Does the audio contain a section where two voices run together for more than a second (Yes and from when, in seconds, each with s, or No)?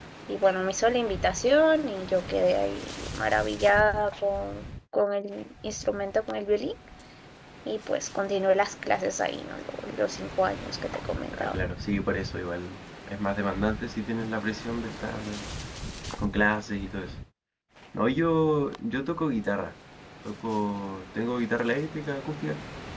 No